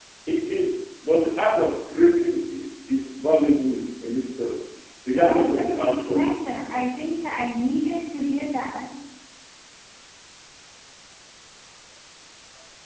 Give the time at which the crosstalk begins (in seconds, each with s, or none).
5.1 s